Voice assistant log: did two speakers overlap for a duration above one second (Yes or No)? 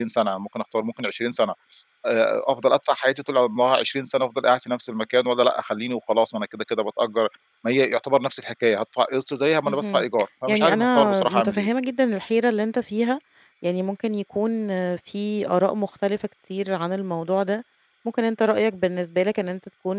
Yes